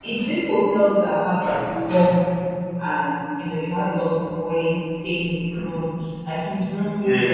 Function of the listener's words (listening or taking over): listening